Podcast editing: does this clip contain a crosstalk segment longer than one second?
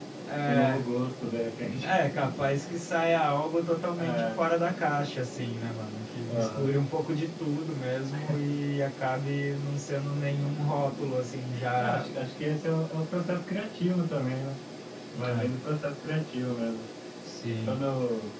No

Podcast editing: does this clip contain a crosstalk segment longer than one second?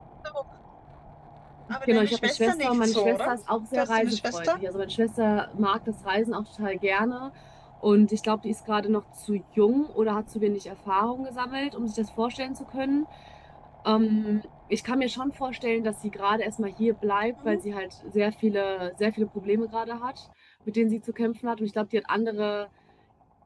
Yes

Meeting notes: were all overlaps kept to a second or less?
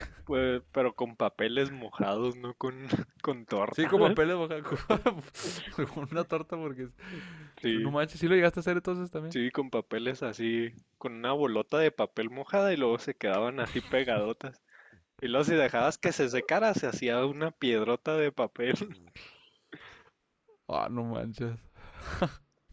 Yes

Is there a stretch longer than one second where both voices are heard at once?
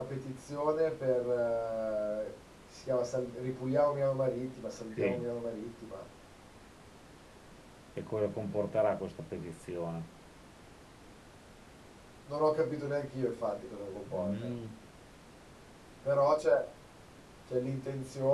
No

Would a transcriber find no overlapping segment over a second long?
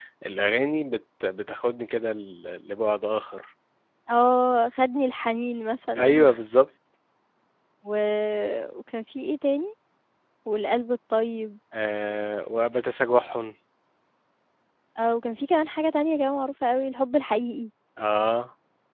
Yes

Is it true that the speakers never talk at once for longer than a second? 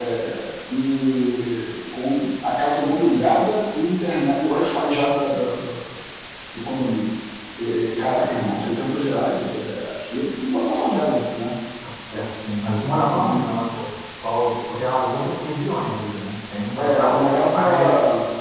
No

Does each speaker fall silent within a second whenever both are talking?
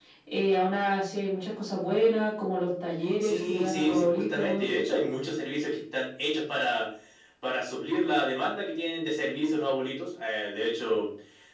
No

